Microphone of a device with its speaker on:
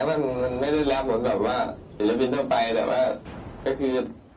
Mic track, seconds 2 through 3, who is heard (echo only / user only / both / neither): echo only